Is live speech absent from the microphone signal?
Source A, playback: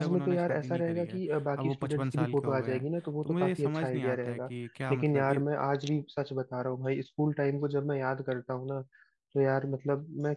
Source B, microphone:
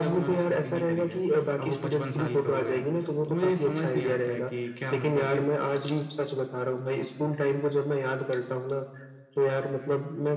Yes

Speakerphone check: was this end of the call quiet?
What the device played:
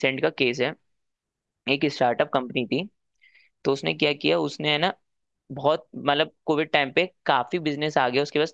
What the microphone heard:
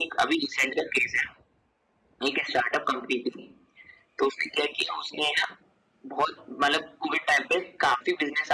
Yes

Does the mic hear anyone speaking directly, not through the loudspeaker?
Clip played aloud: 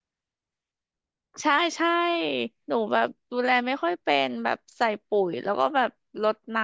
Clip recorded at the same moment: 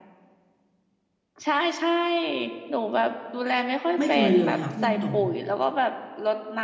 Yes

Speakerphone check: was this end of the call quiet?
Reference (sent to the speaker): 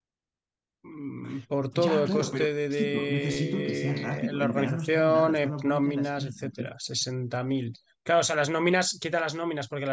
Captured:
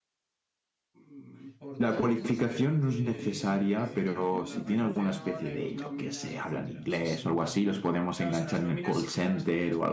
No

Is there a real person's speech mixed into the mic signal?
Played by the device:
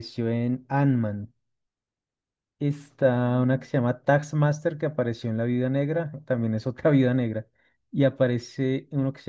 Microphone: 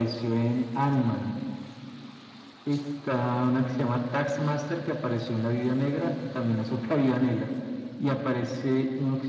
No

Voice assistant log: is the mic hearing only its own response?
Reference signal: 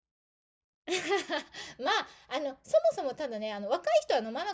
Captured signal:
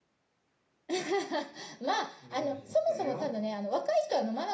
No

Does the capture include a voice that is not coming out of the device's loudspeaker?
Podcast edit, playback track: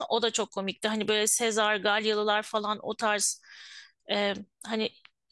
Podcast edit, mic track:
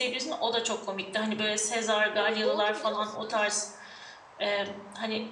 Yes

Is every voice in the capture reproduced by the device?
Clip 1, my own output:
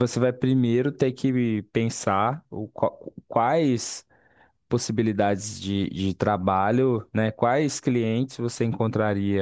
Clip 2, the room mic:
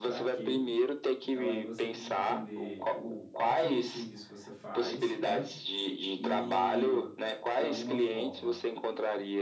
No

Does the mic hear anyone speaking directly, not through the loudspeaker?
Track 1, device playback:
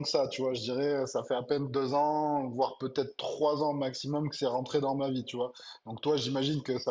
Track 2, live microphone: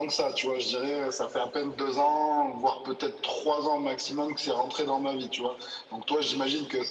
No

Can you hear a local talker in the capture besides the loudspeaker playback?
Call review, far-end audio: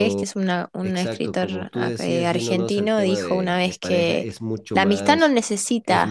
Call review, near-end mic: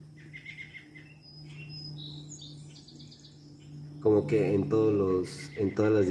Yes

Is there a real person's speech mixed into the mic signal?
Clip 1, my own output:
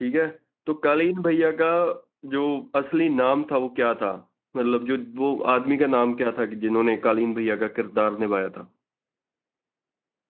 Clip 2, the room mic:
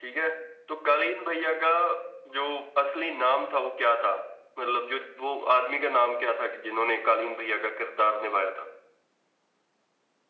No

